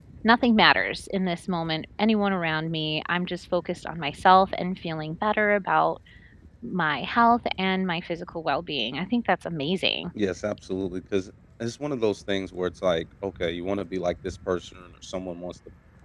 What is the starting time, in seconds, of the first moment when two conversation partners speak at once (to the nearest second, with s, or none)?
none